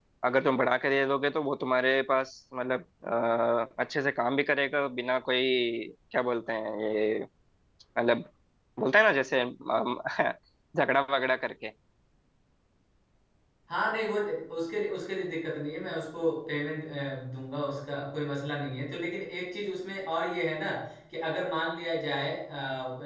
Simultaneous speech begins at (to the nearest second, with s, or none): none